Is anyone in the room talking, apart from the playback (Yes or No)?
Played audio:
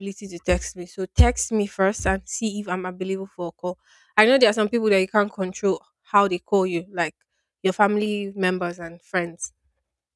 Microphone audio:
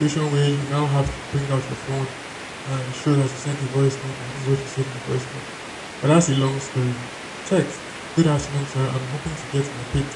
Yes